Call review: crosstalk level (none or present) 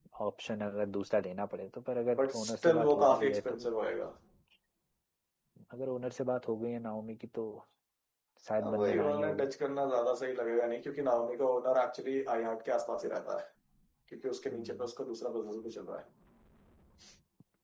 present